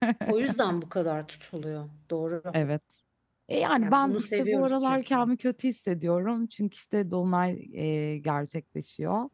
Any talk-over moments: Yes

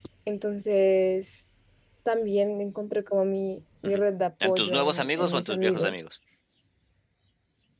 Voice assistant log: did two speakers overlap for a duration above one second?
Yes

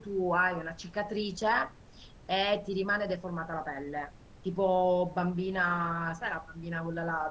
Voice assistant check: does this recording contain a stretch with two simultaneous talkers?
No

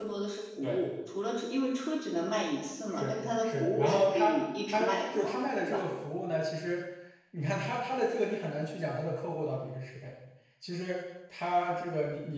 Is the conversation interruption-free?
No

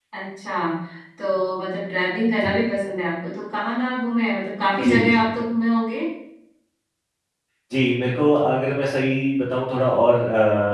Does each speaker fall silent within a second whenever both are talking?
Yes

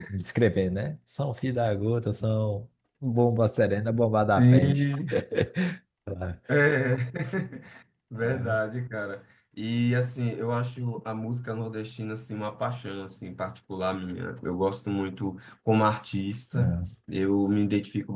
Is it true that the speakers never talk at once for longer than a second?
Yes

